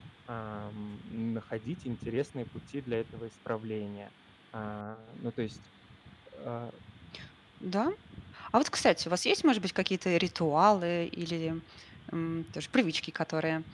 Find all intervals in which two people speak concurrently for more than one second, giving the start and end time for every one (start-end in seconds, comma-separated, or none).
none